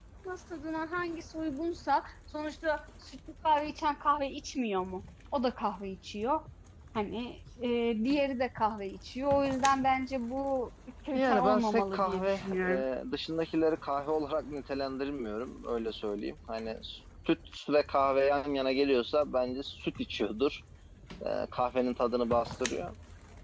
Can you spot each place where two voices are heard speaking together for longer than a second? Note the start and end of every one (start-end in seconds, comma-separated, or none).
11.1-12.8